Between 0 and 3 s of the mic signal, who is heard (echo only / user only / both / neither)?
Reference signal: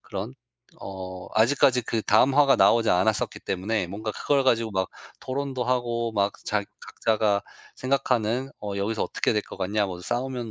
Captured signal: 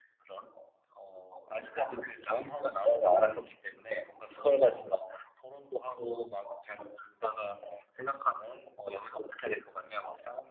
echo only